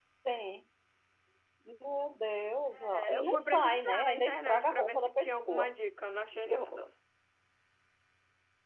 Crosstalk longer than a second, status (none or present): present